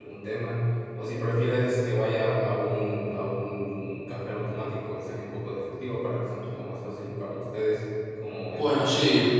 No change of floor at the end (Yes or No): No